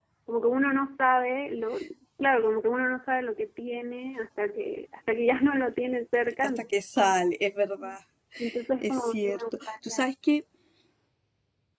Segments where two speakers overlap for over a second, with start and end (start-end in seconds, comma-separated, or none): 8.8-10.0